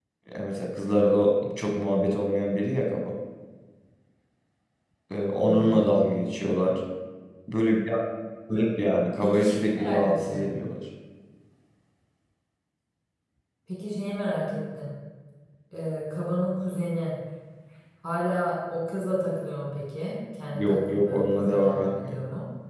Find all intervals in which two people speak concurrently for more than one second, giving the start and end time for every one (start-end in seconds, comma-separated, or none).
9.2-10.4, 20.5-22.2